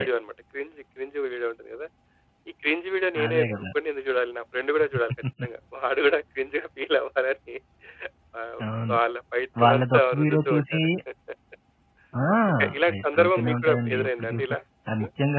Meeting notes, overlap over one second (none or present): present